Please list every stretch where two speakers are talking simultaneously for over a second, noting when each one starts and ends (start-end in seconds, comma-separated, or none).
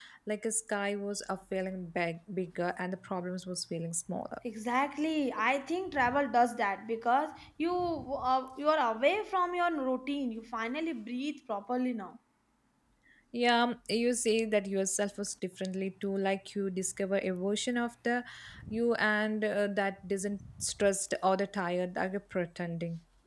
none